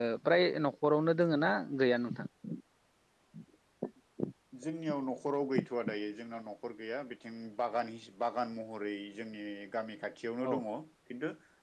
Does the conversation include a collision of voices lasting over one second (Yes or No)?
No